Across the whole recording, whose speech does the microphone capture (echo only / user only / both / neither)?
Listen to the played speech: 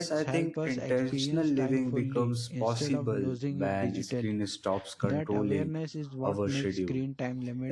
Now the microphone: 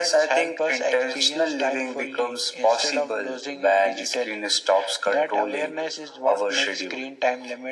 echo only